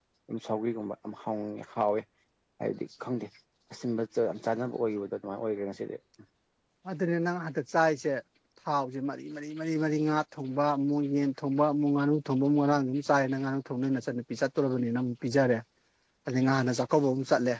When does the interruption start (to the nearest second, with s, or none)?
none